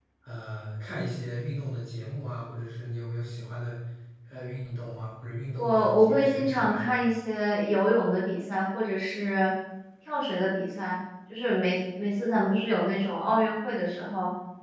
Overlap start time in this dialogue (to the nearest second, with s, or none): 6 s